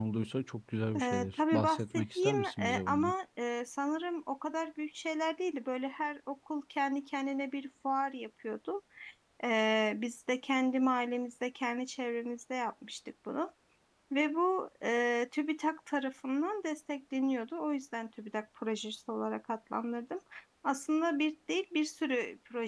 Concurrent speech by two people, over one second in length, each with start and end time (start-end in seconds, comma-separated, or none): 1.0-3.1